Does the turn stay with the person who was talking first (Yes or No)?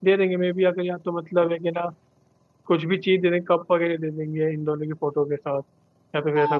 No